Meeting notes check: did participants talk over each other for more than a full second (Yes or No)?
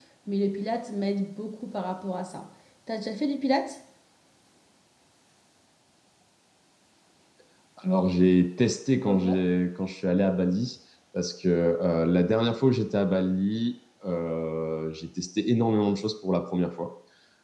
No